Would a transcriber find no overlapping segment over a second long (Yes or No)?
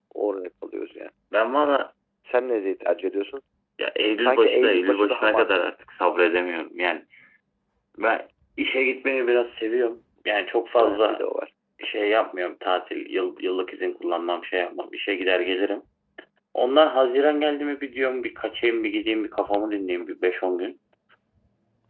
No